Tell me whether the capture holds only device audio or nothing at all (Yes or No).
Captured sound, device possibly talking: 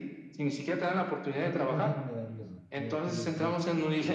No